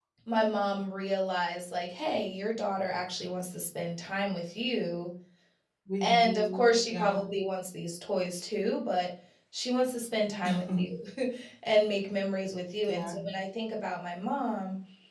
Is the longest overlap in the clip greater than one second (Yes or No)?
Yes